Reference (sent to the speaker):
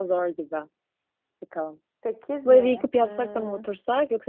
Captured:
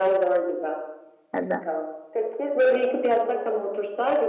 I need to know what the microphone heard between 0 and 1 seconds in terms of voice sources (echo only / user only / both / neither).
echo only